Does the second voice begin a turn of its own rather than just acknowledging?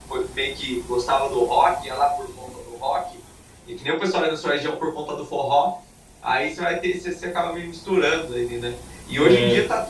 No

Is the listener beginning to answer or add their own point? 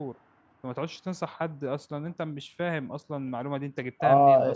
Yes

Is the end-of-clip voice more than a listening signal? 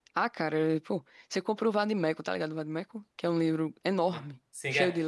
Yes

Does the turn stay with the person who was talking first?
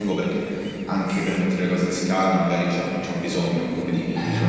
No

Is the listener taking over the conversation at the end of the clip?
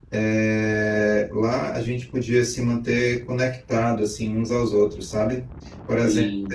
No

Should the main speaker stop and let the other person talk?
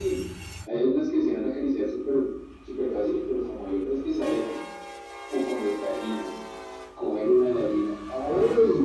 Yes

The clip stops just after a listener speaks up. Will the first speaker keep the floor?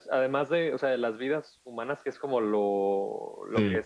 Yes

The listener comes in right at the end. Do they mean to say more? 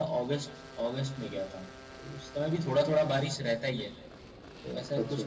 No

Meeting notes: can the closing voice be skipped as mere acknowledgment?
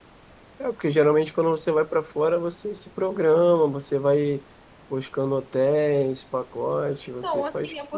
No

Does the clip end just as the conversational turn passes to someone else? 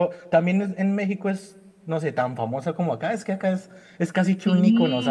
No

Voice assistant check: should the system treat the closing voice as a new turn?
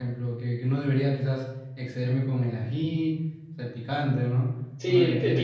Yes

